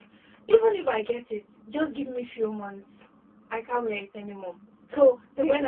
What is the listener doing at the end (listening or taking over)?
listening